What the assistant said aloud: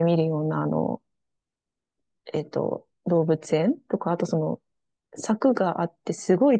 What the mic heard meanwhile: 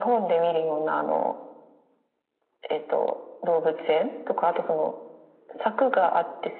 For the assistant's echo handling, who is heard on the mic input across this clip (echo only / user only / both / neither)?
echo only